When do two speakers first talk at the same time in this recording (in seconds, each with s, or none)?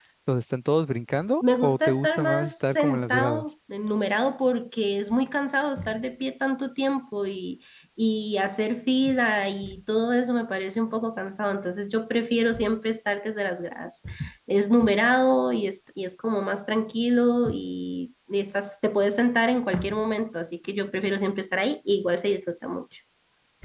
1.4 s